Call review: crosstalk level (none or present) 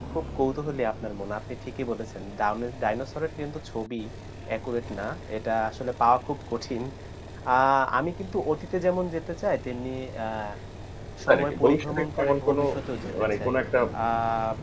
present